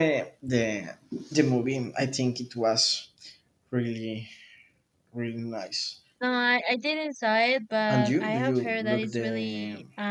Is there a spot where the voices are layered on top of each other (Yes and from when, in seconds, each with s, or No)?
Yes, from 7.9 s